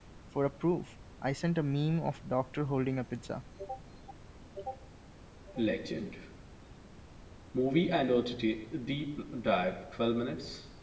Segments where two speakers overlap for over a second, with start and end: none

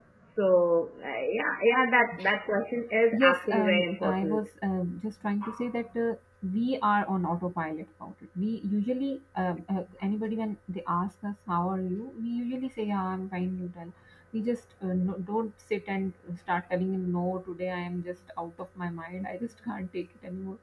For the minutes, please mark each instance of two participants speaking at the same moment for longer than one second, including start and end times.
3.1-4.5

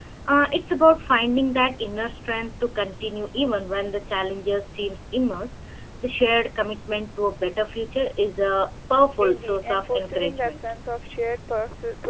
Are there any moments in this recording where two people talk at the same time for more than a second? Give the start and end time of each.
9.2-10.5

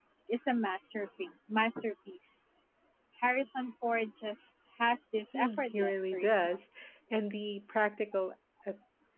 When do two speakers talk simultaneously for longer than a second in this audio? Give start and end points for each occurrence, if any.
5.3-6.6

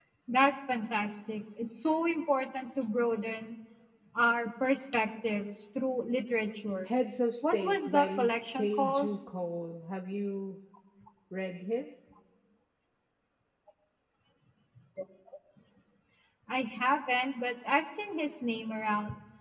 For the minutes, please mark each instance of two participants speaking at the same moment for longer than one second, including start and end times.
7.4-9.1

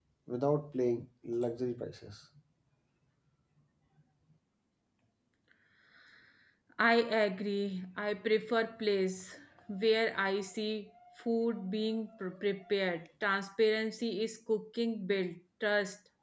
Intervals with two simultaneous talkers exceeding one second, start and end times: none

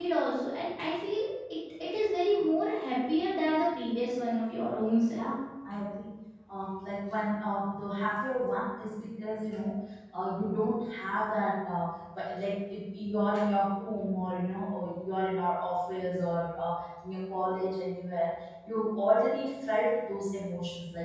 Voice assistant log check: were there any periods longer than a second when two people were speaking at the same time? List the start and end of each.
none

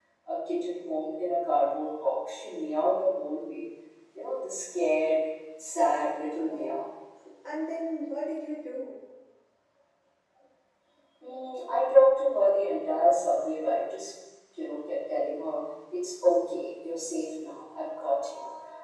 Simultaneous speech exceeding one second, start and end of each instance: none

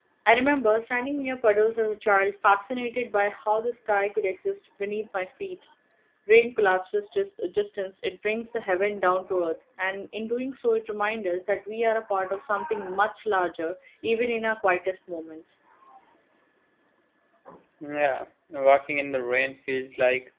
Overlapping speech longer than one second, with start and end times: none

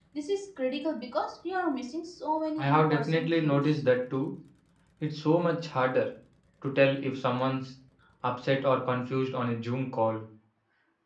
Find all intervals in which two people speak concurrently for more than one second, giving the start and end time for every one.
2.6-3.8

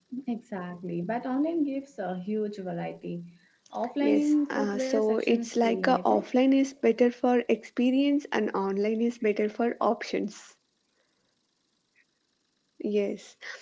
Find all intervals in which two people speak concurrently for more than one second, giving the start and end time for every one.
4.0-6.3

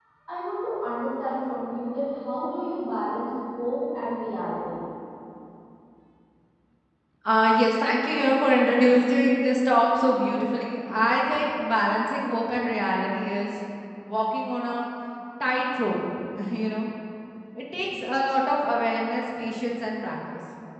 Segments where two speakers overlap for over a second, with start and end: none

